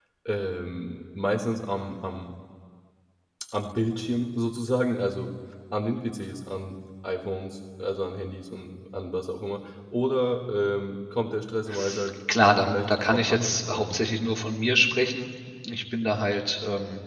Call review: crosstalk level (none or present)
present